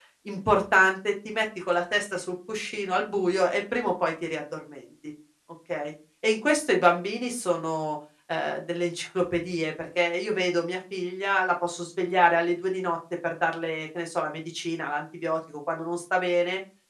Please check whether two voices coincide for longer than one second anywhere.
No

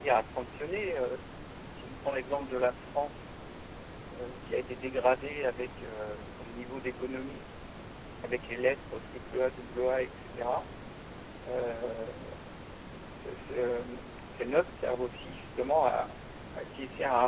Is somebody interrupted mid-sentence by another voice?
No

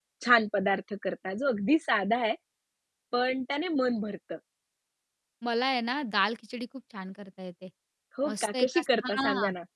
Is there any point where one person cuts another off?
Yes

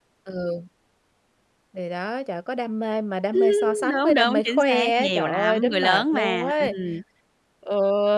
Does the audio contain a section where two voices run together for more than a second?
Yes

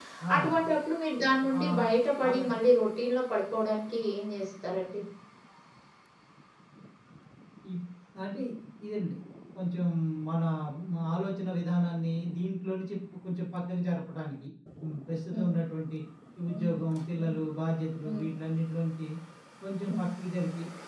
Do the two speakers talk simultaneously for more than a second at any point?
No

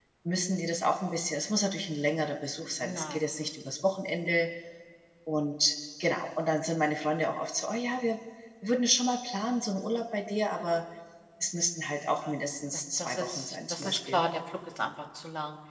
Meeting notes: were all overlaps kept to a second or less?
No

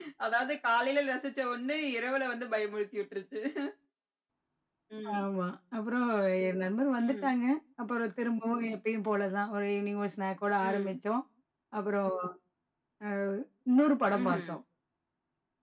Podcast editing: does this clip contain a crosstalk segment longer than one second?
No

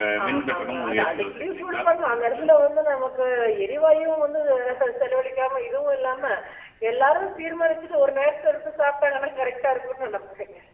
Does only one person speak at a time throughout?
No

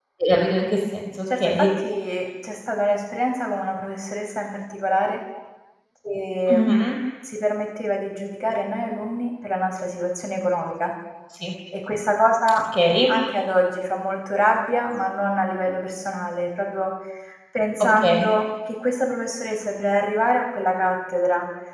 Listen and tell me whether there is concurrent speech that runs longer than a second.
No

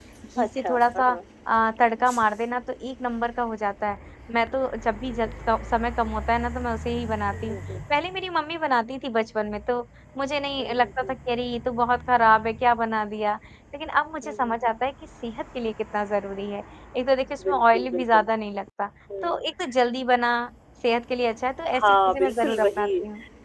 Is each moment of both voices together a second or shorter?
No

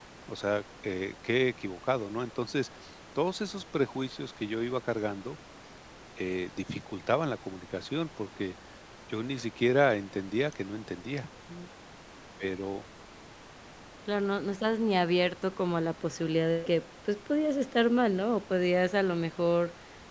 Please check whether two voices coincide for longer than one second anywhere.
No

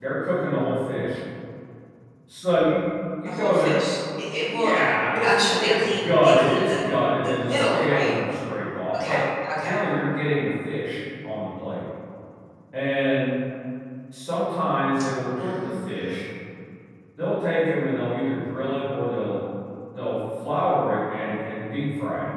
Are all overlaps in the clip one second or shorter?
No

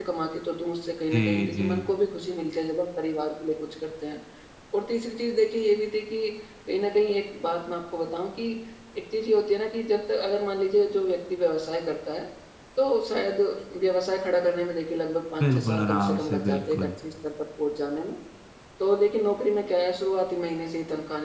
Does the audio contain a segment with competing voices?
Yes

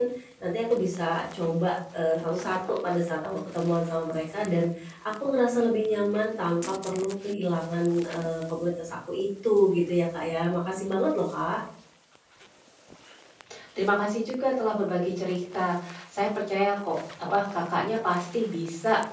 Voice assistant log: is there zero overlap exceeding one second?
Yes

